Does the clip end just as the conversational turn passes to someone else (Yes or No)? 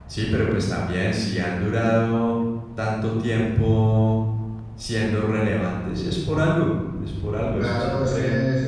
Yes